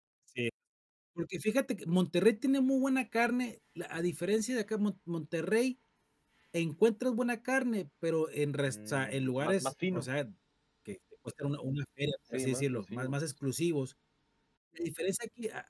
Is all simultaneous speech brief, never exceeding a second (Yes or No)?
No